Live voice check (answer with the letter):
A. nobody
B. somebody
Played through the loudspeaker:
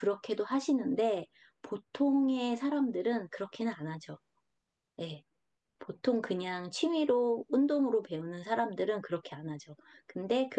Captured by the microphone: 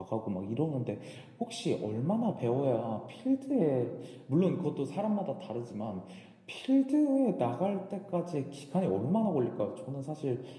B